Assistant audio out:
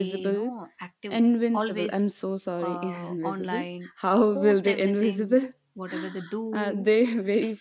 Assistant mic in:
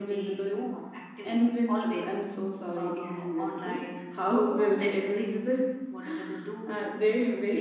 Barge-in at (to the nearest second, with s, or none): none